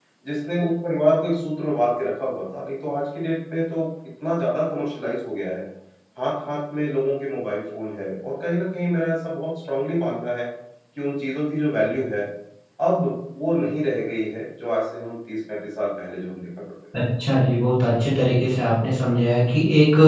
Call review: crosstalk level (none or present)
none